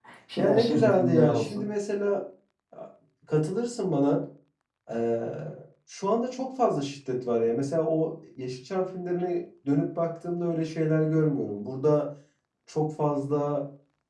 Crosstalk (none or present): present